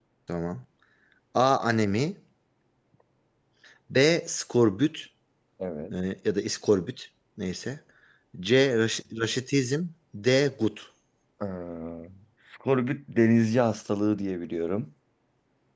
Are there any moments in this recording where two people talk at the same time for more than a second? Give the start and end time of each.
none

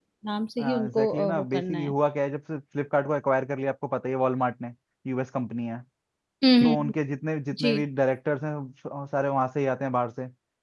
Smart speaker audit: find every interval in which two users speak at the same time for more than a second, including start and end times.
0.6-1.9

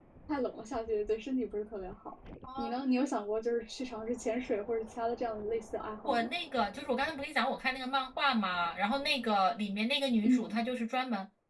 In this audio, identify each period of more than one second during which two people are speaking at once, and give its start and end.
none

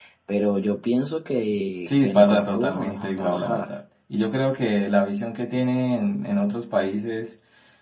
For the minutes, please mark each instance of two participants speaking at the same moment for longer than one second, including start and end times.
1.9-3.8

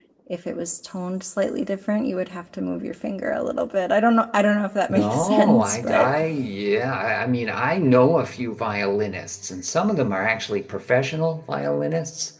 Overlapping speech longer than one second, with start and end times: 4.9-6.1

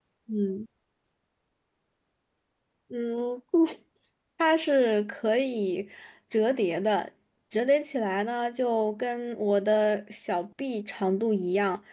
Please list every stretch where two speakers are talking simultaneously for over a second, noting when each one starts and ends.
none

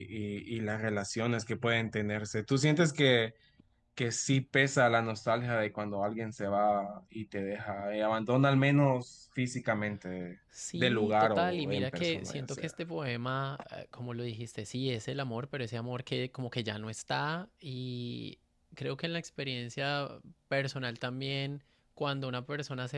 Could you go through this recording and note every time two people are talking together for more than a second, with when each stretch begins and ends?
10.8-12.7

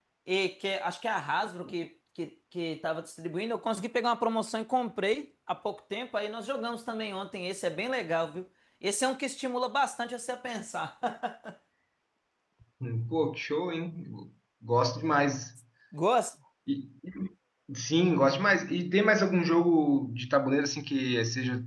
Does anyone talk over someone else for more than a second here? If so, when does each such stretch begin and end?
none

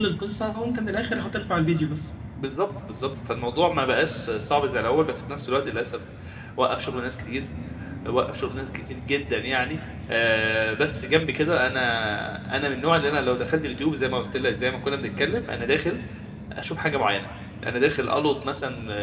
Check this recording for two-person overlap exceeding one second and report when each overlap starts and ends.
none

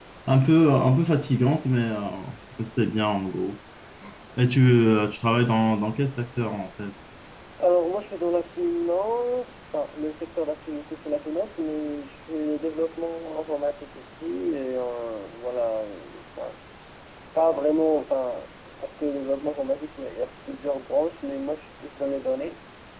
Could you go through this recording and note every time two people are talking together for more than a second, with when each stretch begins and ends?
none

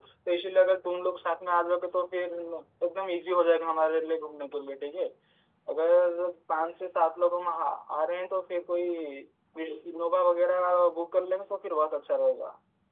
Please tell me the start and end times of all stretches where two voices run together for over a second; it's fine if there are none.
none

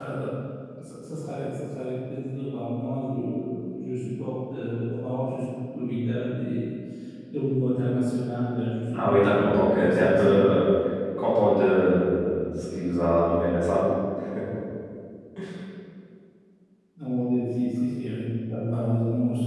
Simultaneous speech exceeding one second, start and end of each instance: 8.9-10.5

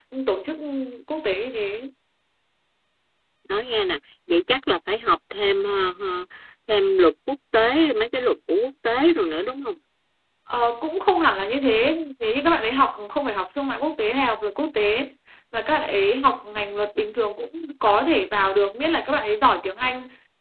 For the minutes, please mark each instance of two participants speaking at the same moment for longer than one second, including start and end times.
none

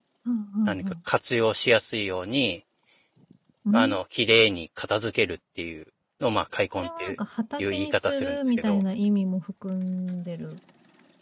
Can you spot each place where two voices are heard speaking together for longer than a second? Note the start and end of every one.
7.6-8.8

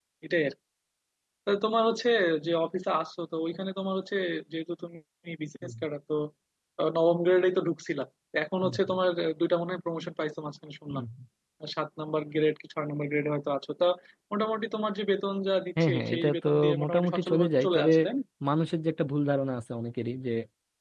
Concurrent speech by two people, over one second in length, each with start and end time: 15.8-17.9

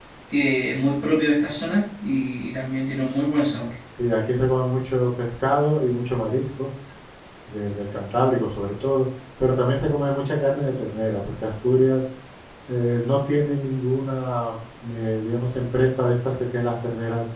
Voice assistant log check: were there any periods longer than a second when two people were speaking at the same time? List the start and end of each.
none

